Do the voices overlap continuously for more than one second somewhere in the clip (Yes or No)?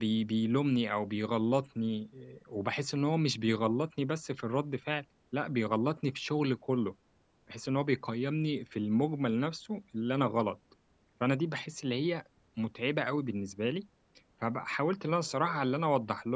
No